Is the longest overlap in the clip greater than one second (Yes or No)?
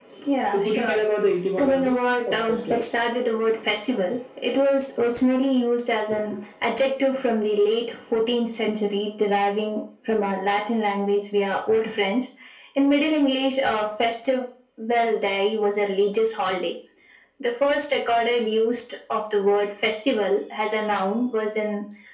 Yes